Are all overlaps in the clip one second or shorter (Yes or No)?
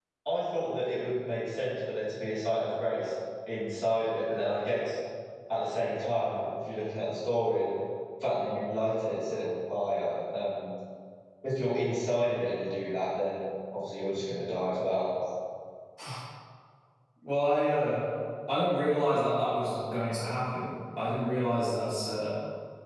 Yes